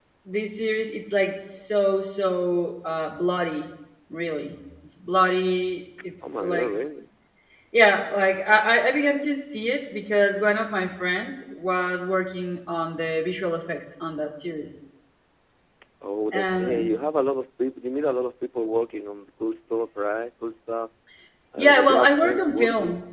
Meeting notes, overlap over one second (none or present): present